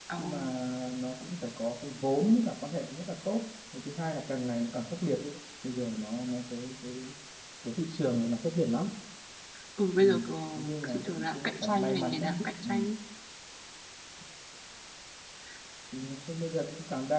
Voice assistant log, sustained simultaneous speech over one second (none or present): present